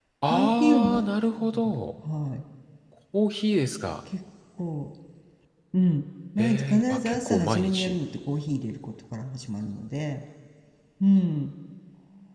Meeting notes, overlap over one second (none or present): present